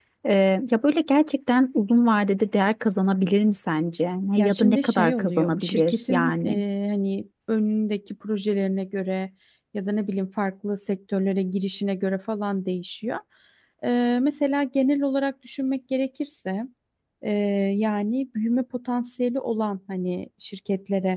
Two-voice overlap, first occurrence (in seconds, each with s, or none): 4.4 s